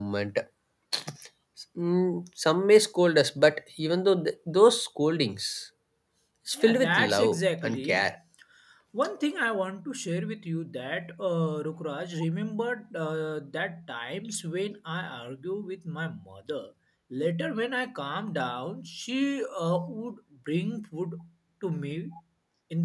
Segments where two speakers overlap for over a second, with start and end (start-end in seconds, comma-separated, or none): 6.6-8.1